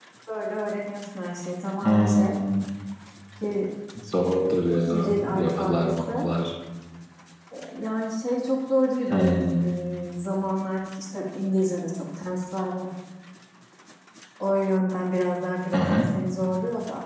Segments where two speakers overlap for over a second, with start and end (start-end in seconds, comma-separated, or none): 4.8-6.3